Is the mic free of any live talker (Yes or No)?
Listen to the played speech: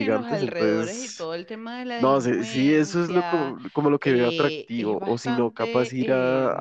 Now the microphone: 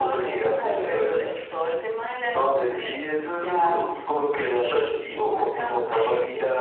Yes